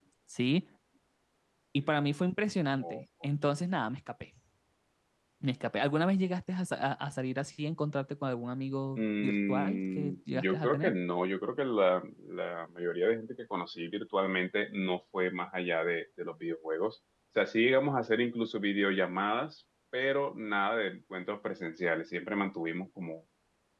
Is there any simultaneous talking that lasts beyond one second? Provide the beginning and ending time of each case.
9.0-10.9

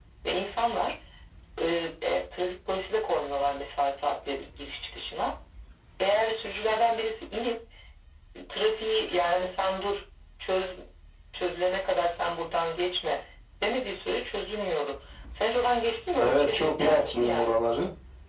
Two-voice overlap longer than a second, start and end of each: 16.2-17.5

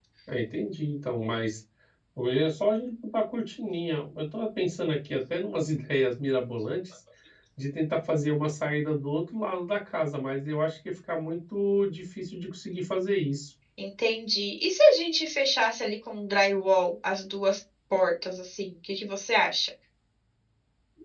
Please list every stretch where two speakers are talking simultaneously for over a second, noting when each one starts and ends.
none

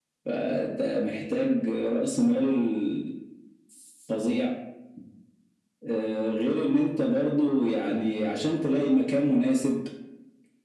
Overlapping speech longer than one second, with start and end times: none

